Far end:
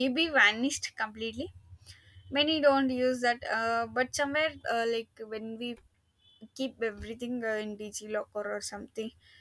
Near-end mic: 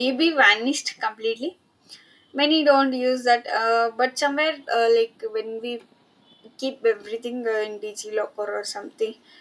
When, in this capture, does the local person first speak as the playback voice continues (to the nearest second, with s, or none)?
none